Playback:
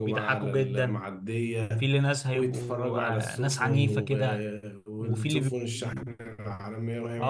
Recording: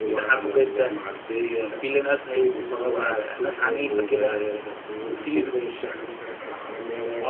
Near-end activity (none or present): none